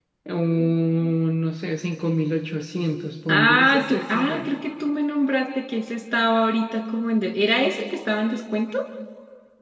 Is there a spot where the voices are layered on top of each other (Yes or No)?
Yes